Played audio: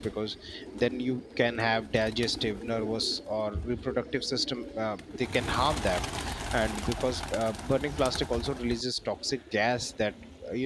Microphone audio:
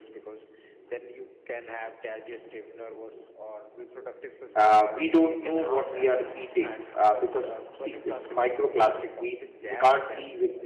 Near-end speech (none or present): present